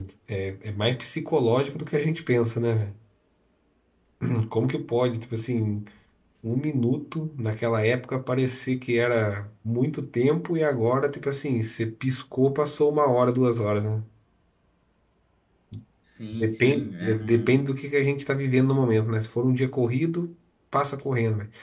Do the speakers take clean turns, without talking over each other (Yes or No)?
No